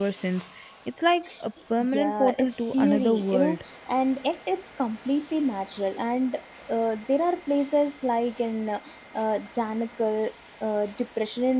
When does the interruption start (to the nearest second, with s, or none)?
2 s